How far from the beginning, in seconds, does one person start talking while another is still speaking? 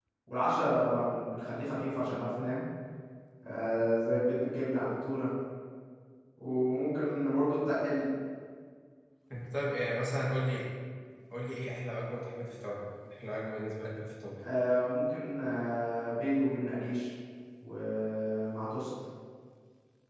none

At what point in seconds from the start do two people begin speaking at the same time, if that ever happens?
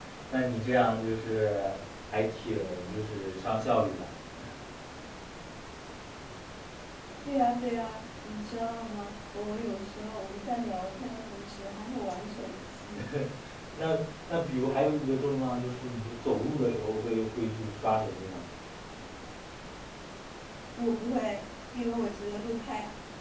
none

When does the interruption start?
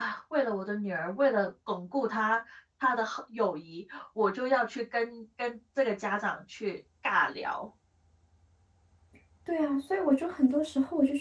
none

